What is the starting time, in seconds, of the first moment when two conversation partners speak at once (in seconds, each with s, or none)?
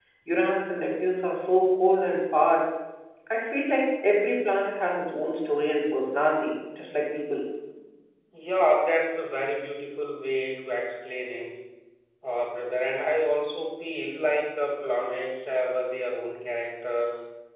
none